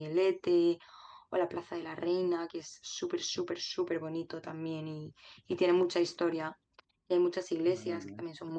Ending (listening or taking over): listening